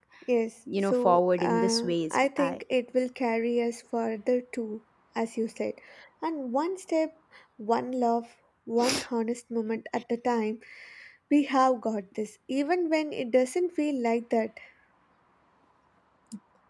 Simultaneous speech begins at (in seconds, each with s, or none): 0.8 s